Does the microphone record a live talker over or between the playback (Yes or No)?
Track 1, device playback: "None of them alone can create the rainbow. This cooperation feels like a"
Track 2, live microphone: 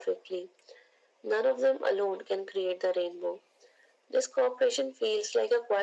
No